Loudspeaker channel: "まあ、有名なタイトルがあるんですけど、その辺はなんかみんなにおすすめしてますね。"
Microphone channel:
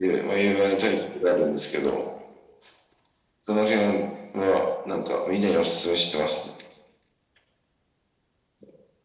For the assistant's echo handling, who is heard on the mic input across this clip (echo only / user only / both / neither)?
echo only